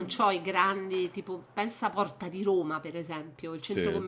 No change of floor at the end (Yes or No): Yes